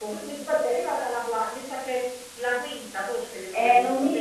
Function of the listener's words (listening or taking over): taking over